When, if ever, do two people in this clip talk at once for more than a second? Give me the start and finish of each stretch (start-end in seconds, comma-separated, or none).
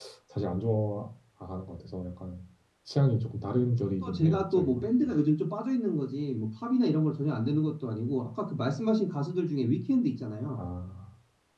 3.8-5.1